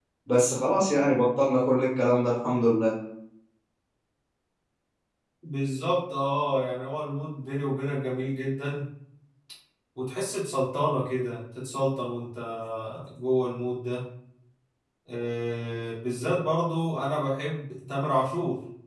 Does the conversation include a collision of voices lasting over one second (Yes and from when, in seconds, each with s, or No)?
No